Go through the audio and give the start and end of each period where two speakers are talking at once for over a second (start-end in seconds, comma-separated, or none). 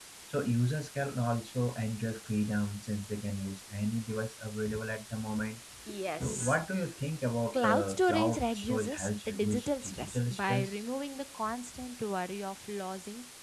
7.5-10.7